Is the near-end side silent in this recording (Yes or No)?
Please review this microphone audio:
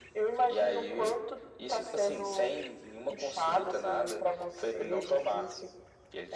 Yes